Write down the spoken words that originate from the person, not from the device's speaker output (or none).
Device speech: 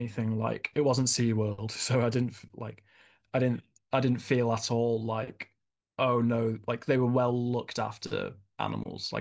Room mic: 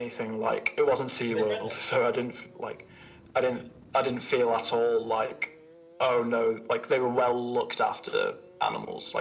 Were they friendly?